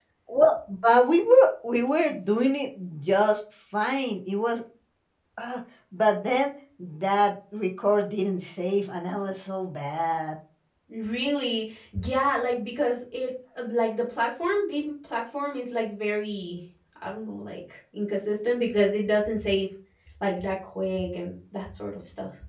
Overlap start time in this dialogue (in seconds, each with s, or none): none